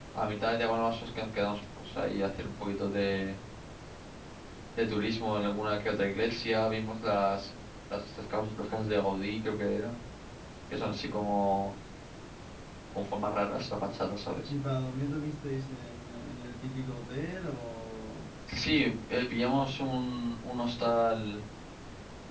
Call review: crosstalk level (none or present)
none